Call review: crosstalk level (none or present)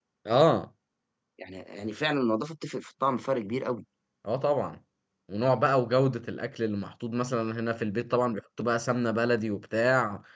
none